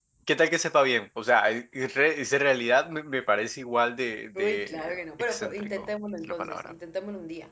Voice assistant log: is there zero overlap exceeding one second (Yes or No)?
No